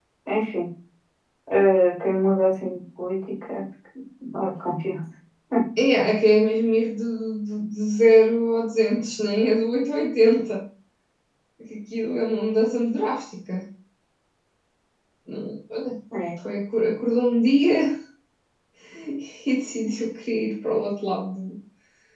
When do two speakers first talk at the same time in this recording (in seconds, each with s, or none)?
none